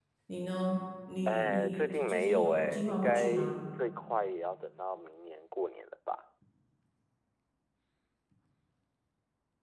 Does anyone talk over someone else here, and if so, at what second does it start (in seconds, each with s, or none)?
1.3 s